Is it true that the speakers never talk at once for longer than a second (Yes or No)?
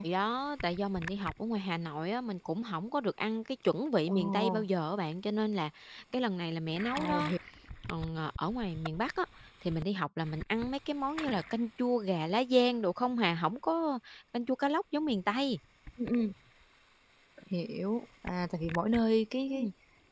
Yes